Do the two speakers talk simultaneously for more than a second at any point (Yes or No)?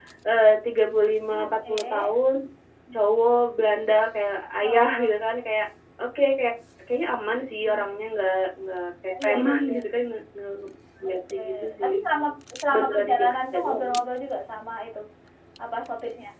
Yes